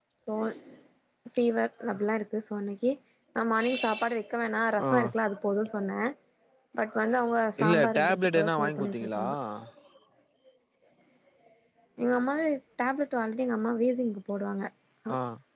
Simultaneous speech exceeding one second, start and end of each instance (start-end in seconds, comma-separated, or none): 7.6-9.2